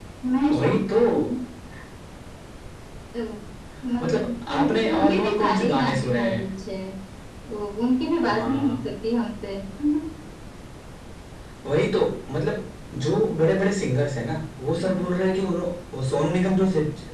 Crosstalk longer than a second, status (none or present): present